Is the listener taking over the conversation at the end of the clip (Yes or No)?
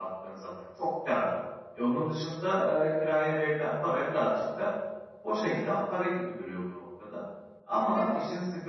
No